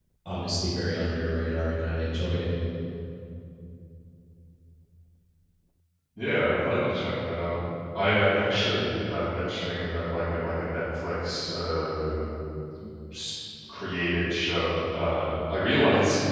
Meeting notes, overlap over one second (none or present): none